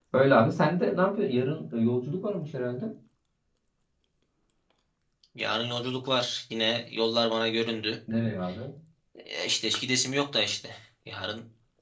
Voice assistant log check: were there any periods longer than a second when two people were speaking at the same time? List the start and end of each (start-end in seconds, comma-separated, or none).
none